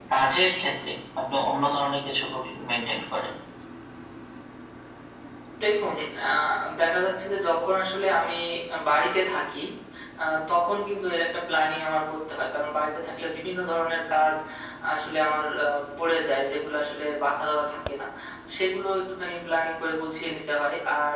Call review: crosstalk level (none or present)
none